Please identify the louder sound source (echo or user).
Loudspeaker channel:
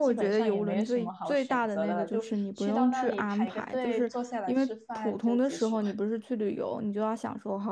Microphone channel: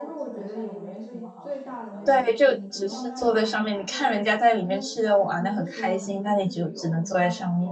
user